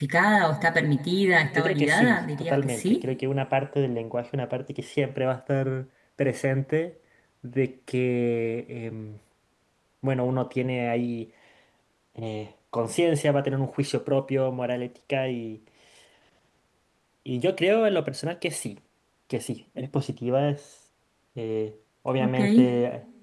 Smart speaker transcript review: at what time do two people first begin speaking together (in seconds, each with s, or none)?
1.5 s